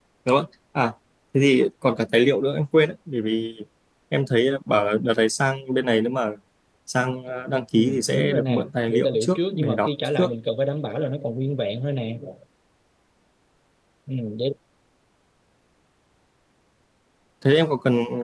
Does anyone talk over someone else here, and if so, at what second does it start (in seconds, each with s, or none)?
7.8 s